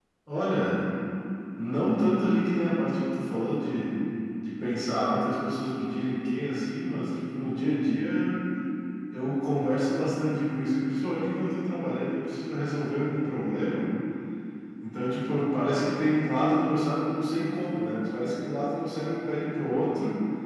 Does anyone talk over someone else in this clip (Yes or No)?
No